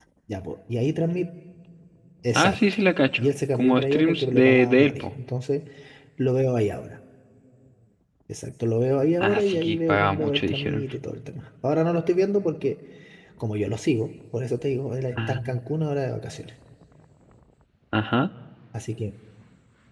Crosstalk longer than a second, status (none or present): present